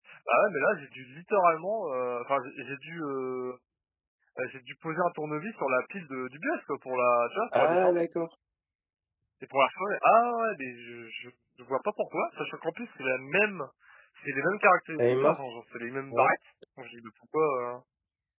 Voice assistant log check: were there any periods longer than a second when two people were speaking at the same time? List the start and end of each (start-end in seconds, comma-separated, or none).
none